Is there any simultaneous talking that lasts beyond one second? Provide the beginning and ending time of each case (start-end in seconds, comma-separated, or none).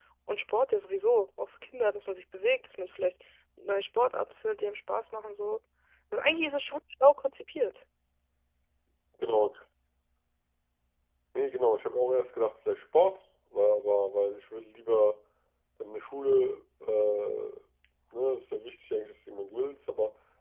none